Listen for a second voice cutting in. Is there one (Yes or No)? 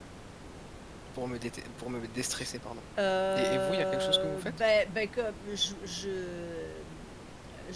Yes